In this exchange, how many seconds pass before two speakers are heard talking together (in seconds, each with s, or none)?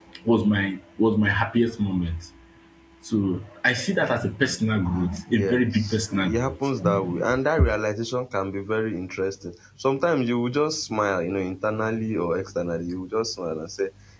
5.3 s